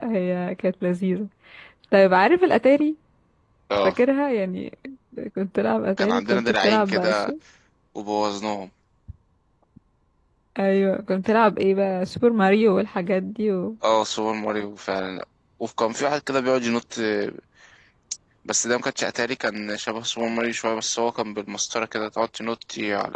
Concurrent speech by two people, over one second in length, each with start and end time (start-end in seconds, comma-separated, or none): 6.0-7.3